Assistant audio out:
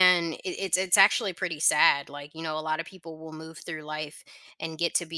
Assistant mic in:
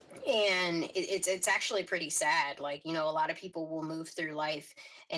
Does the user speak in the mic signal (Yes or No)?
No